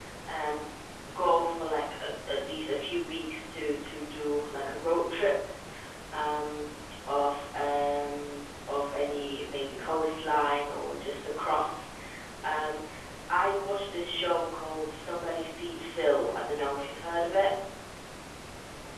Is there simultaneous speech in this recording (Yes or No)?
No